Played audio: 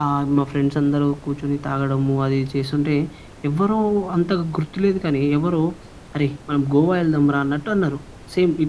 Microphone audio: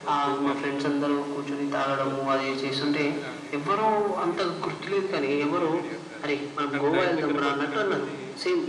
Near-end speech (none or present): present